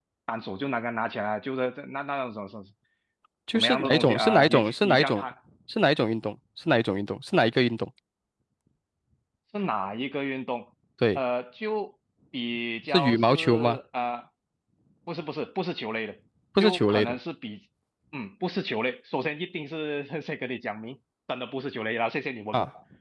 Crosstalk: present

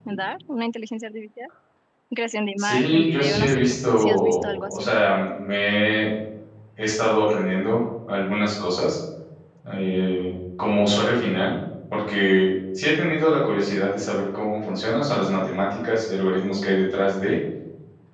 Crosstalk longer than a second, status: present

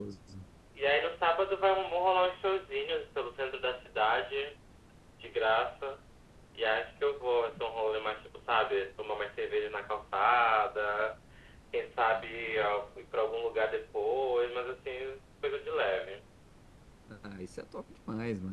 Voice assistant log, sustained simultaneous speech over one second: none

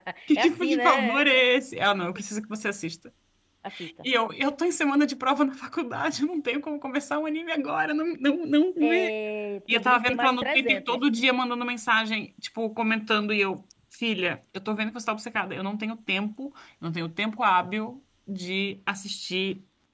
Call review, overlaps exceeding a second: present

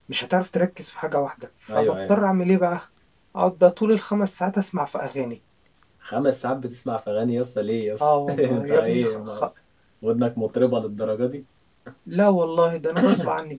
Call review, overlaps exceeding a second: present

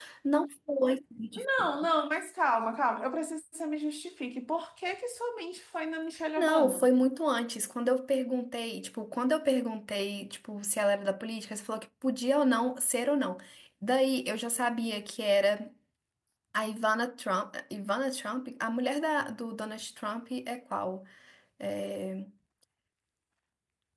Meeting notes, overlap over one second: none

